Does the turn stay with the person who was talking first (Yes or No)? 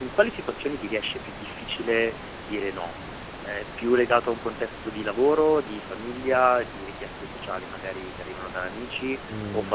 Yes